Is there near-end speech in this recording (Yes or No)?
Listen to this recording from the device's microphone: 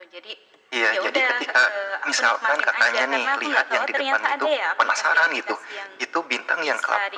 No